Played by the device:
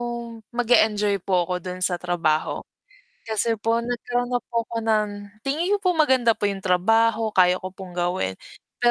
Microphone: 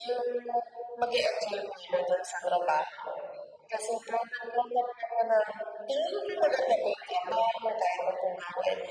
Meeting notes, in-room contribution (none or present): none